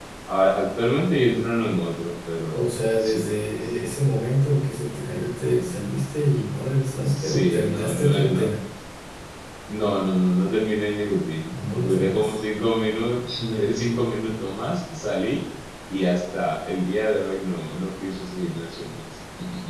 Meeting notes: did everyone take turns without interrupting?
No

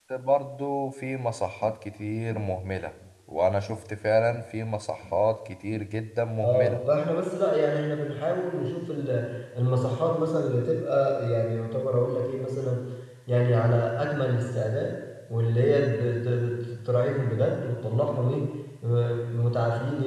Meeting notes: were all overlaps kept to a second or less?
Yes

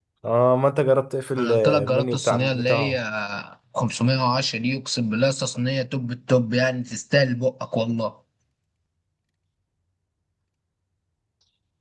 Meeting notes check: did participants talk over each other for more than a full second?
Yes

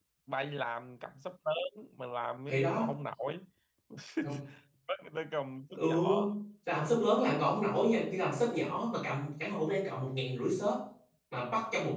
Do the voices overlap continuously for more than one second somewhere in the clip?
No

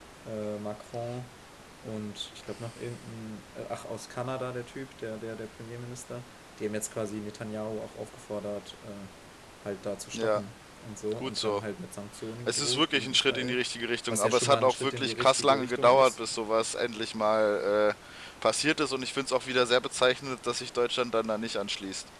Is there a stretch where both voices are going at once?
Yes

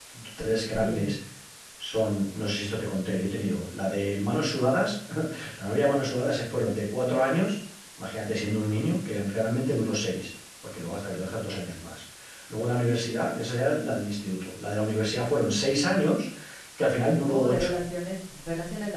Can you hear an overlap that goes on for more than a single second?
No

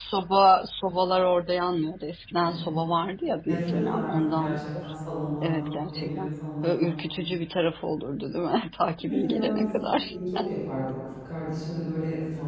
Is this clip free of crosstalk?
No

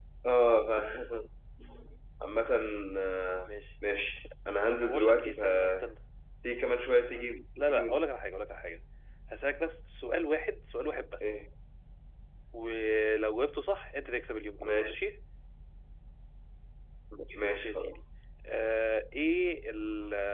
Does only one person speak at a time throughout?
No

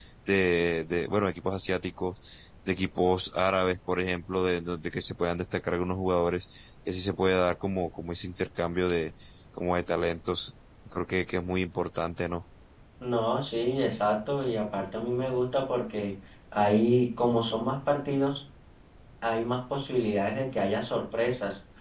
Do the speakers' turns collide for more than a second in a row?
No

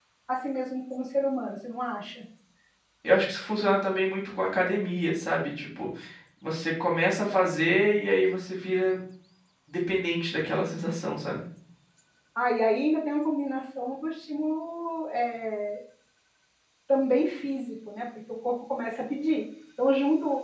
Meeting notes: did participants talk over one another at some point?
No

